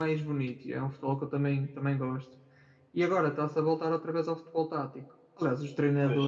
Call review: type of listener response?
listening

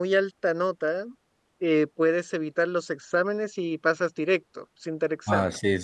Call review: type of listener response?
taking over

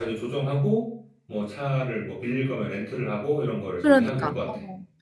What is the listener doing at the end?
taking over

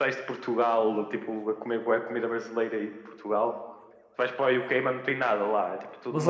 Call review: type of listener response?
taking over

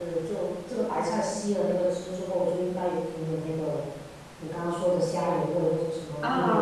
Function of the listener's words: taking over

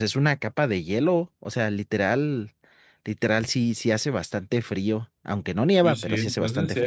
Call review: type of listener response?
taking over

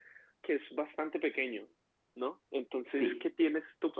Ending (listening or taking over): listening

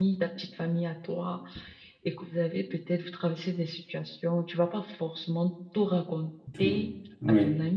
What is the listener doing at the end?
listening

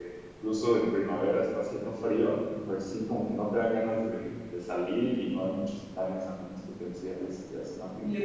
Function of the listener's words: taking over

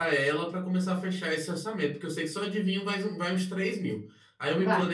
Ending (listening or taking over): listening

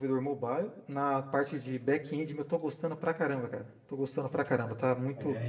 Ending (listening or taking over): taking over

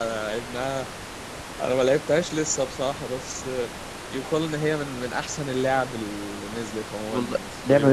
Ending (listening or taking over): taking over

